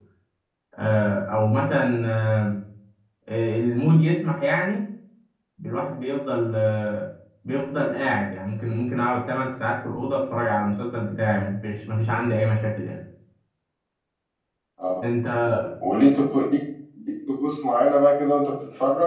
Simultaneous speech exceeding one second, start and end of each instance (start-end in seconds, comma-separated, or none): none